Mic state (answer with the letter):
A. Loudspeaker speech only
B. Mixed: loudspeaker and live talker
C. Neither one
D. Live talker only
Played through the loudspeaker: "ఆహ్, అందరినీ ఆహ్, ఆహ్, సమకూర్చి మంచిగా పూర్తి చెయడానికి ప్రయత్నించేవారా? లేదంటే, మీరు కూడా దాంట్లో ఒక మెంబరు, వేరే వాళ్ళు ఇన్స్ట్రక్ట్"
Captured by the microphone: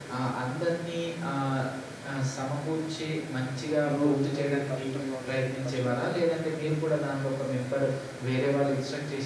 B